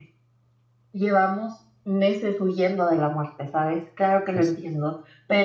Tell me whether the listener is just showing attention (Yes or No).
Yes